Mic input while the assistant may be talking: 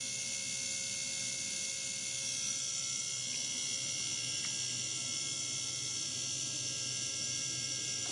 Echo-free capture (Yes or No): Yes